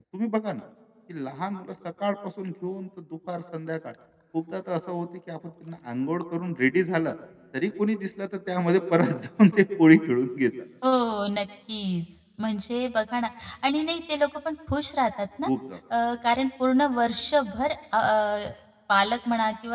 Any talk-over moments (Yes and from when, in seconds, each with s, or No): No